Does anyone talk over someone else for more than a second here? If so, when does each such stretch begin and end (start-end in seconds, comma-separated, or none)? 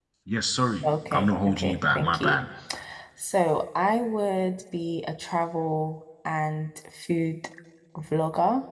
0.8-2.4